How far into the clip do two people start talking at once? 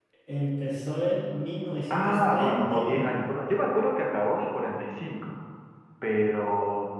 1.9 s

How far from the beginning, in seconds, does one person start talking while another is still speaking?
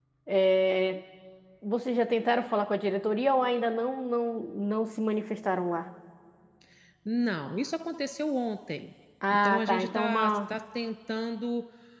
9.2 s

